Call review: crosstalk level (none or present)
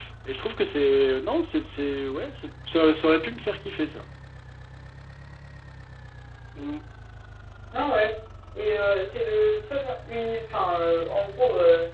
none